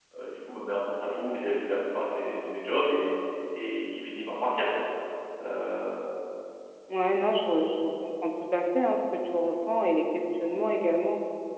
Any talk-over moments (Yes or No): No